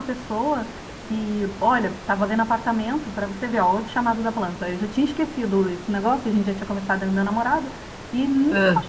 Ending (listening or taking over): listening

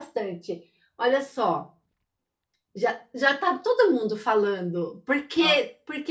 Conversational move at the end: listening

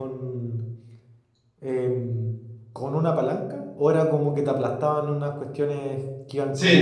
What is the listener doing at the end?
taking over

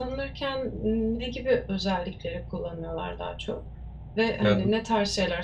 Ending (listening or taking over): listening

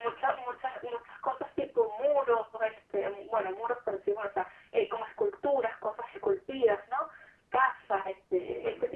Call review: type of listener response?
listening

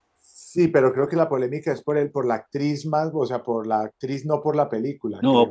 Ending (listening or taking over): taking over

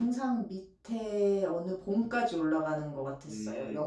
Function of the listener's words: taking over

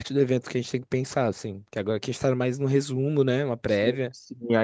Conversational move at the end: taking over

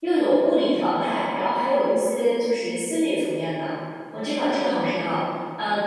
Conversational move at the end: listening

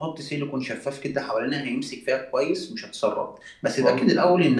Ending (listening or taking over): listening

